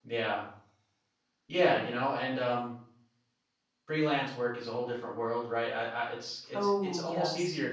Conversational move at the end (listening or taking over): listening